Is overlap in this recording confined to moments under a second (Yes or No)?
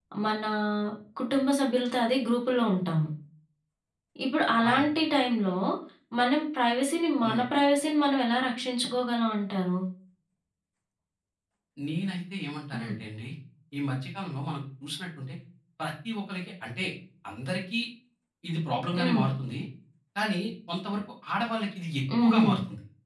Yes